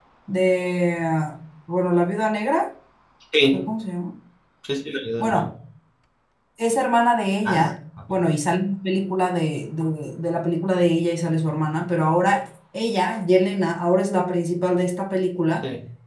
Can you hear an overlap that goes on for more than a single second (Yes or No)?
No